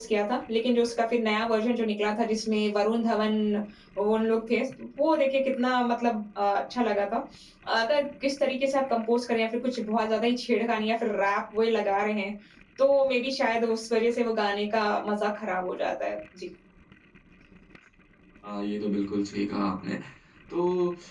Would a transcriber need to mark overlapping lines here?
No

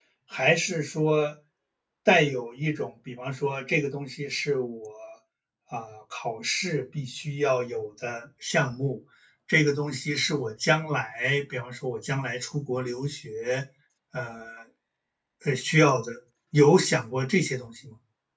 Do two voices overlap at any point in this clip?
No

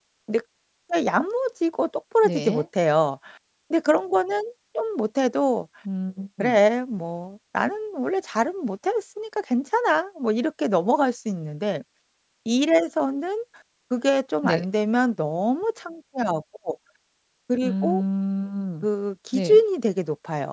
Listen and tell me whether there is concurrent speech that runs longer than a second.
No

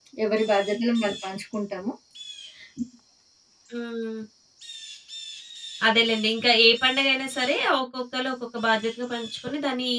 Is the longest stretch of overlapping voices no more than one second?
Yes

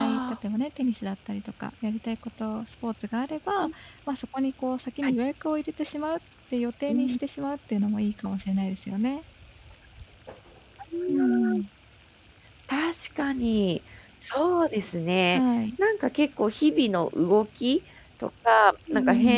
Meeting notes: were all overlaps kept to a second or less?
Yes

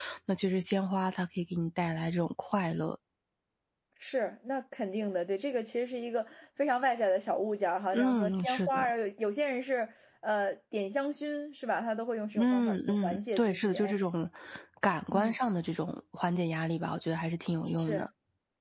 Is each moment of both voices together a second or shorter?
No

